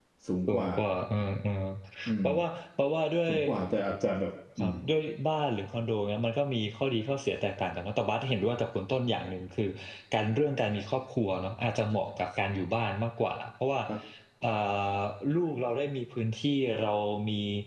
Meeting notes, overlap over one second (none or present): none